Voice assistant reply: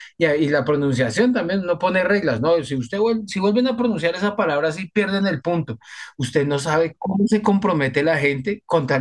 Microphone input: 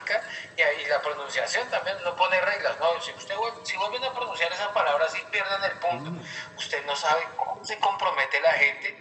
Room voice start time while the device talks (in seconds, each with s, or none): 5.9 s